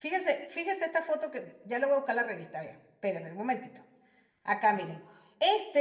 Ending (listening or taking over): listening